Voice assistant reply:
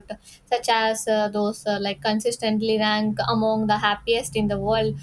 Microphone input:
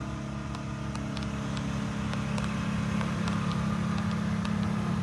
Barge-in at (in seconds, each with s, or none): none